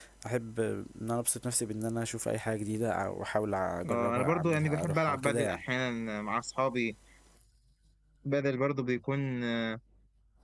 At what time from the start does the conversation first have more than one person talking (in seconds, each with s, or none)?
3.8 s